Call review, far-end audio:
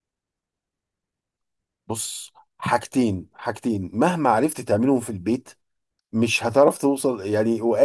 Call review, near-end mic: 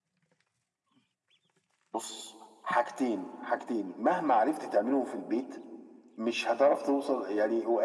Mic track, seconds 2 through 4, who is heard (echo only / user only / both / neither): echo only